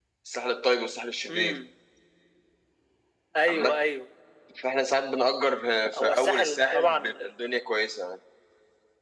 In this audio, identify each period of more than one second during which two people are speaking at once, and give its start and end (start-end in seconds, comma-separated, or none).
6.0-7.3